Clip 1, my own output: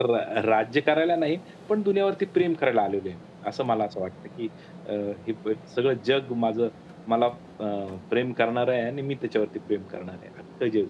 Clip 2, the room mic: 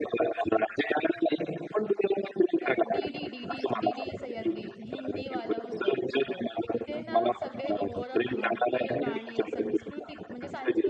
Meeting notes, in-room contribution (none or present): present